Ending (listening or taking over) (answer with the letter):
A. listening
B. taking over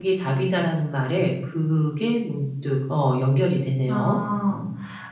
B